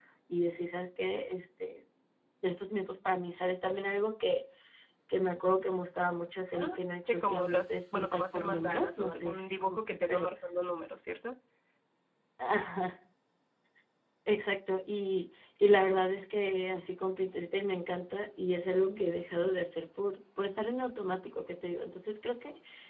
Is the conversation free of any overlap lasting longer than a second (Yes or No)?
No